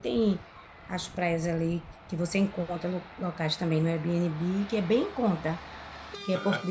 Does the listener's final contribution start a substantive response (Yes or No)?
No